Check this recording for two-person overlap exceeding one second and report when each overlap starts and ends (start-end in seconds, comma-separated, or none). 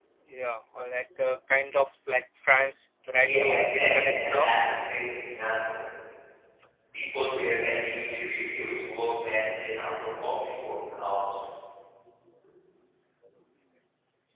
3.2-4.5